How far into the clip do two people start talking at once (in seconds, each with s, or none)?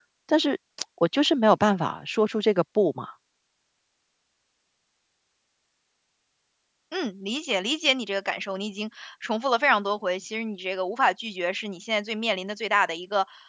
none